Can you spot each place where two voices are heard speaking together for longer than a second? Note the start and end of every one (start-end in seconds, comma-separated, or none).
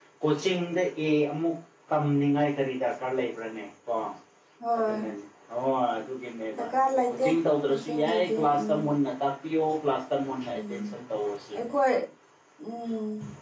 7.7-8.9